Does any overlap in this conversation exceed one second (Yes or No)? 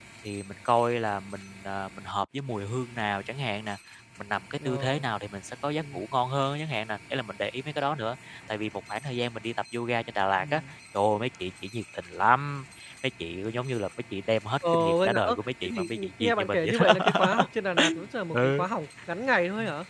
Yes